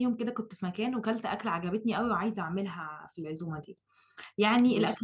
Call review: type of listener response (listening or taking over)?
listening